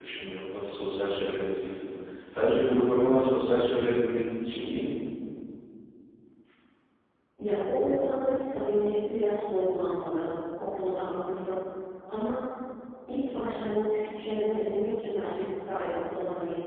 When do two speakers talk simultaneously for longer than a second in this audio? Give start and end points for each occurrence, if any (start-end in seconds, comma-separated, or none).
none